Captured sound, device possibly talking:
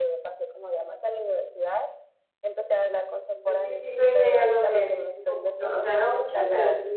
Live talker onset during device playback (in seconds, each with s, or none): 3.4 s